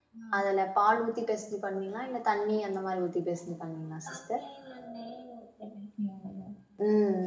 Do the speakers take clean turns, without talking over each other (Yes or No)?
Yes